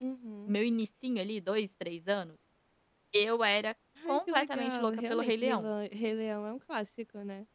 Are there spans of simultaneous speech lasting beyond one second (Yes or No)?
Yes